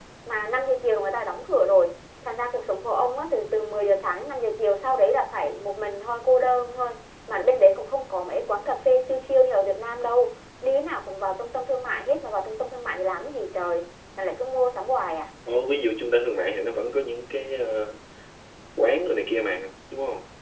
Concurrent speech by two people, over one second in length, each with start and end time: none

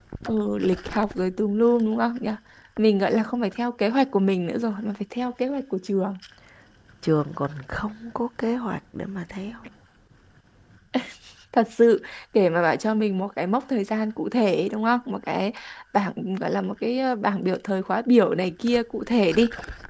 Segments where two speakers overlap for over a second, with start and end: none

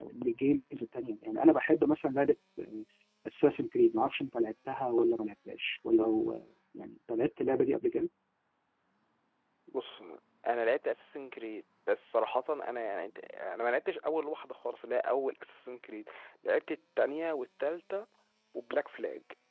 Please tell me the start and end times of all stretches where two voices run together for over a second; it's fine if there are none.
none

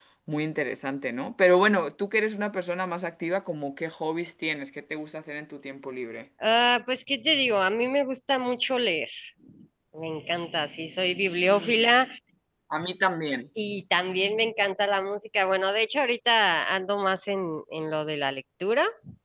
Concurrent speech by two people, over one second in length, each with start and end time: none

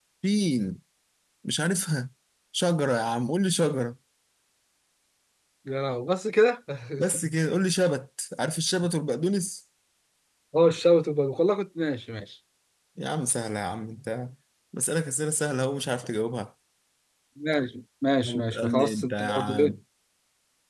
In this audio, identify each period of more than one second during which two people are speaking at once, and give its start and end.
18.2-19.7

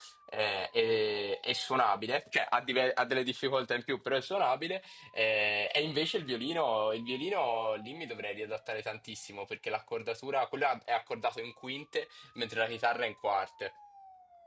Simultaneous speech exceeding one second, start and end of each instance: none

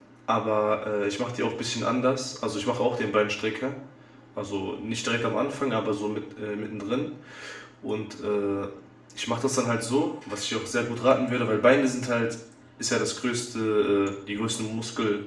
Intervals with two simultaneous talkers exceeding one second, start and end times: none

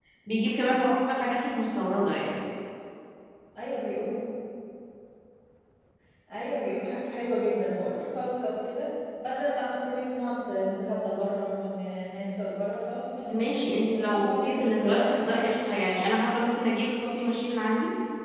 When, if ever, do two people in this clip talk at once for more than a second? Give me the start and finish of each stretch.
13.3-15.7

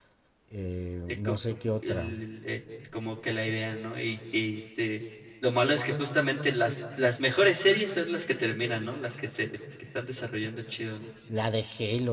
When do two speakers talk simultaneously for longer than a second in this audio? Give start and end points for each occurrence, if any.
none

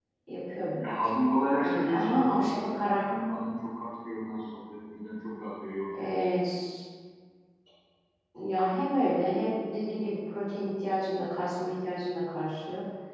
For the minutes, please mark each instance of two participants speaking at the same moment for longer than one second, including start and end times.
1.6-3.1

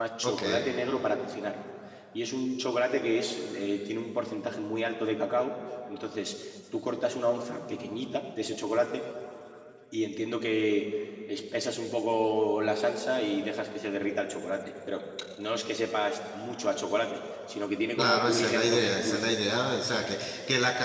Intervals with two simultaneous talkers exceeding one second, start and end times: 18.0-19.4

